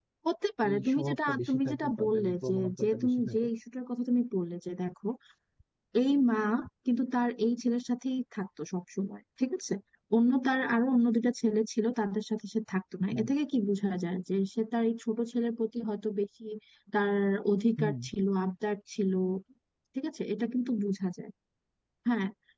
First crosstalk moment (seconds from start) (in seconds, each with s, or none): 0.7 s